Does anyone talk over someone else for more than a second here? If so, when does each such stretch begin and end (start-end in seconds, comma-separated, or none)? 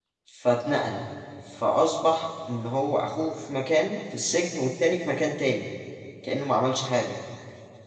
none